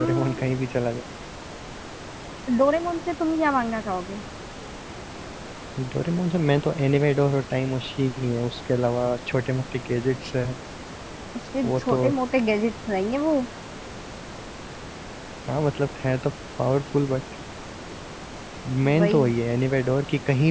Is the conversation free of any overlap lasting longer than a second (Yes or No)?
Yes